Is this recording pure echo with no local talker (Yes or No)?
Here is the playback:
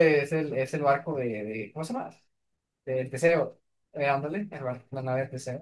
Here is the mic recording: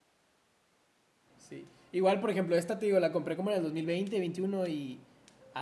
No